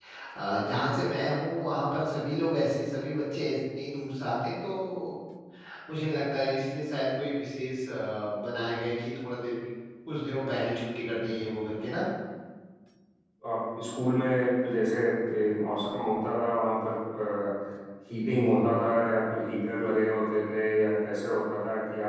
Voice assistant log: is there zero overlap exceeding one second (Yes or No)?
Yes